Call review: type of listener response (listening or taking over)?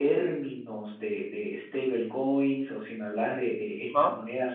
listening